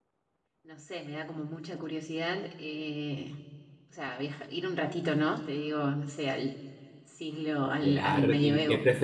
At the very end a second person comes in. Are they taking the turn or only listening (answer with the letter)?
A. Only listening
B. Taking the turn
B